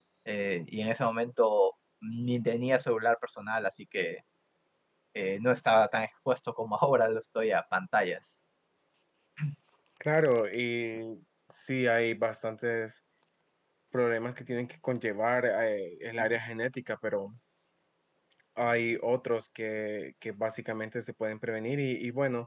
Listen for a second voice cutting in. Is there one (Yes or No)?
No